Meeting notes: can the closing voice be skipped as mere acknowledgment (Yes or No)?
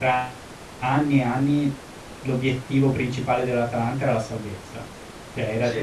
Yes